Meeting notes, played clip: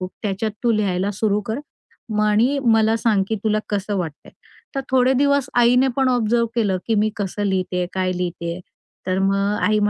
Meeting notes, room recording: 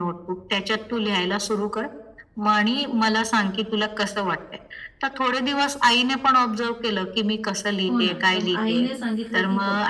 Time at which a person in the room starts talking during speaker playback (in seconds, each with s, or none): 7.9 s